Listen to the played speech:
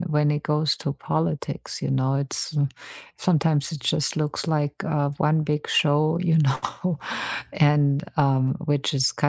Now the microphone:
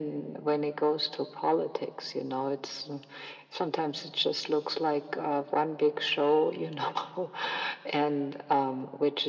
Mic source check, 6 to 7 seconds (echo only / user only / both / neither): echo only